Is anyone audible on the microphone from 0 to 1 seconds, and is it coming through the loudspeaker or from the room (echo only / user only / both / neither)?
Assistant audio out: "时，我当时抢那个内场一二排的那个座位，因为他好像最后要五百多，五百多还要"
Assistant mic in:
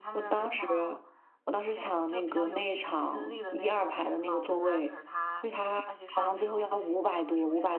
both